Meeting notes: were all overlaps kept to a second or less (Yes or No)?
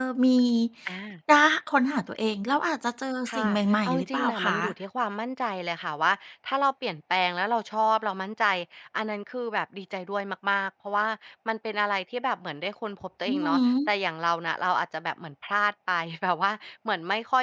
No